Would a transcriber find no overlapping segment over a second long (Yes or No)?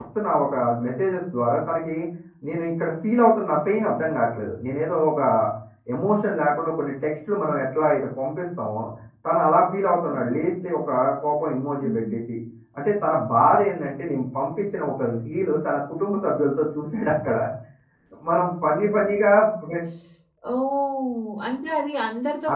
Yes